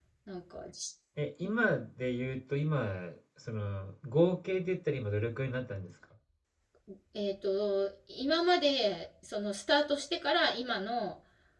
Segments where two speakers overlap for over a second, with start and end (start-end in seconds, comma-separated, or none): none